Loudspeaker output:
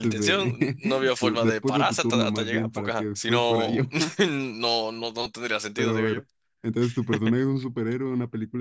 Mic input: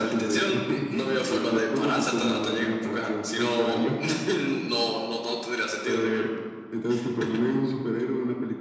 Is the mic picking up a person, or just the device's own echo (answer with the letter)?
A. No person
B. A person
A